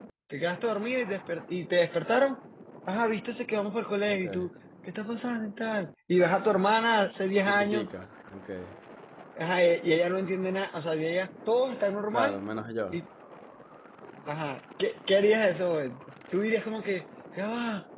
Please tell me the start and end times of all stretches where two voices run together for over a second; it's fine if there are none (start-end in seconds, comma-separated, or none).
none